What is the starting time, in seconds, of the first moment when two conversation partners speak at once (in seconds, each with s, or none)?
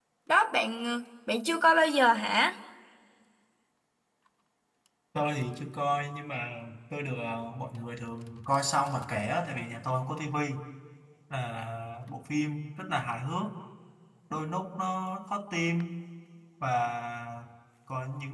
none